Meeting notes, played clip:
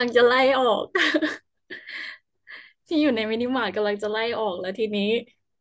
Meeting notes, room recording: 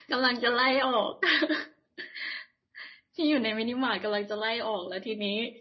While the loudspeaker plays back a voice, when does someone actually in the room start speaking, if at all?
none

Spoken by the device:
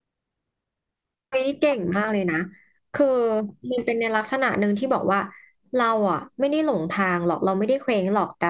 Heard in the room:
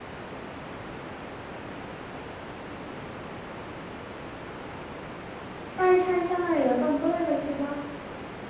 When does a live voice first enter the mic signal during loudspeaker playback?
5.8 s

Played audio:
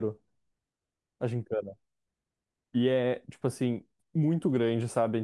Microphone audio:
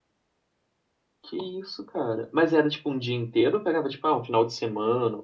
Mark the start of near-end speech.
1.2 s

